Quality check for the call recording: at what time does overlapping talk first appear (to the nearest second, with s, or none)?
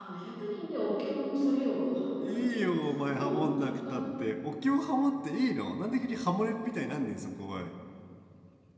2 s